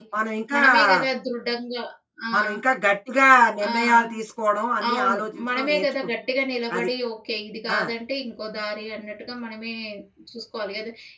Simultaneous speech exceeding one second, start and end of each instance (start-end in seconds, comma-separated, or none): 4.9-6.1